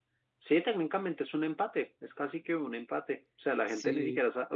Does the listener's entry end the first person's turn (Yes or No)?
No